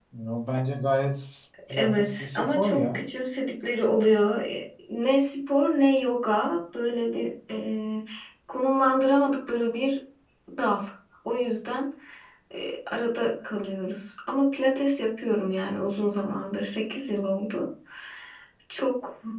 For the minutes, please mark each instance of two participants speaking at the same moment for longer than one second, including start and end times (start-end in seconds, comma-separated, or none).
1.7-3.0